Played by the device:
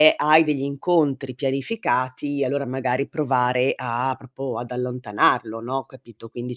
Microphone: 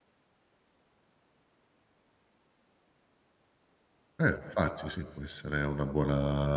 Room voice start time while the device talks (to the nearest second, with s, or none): 4 s